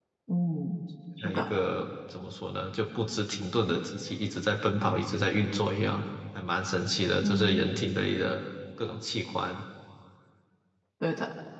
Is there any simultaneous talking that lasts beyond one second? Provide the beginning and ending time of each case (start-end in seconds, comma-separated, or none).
none